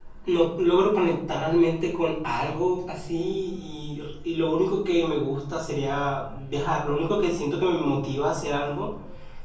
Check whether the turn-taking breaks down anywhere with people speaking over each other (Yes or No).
No